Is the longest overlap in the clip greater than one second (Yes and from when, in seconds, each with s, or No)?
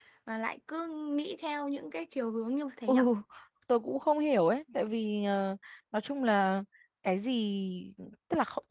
No